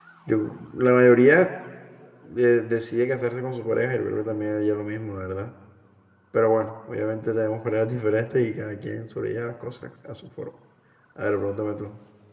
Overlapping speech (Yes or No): No